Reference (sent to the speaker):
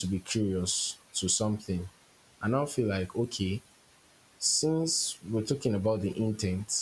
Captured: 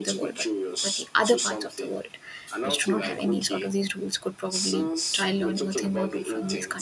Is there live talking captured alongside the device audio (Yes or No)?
Yes